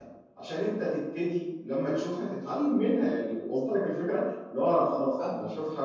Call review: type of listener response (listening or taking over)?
listening